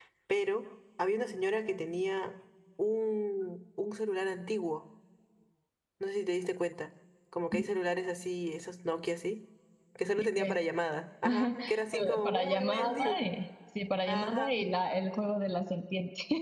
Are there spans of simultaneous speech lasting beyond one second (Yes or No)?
Yes